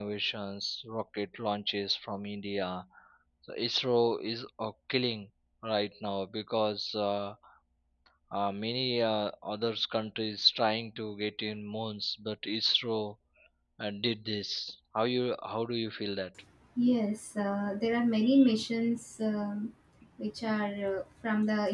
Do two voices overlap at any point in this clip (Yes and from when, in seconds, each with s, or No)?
No